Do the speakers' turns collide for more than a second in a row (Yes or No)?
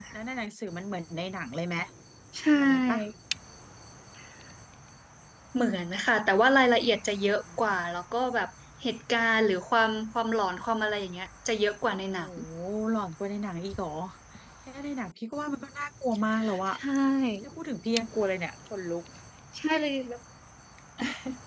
No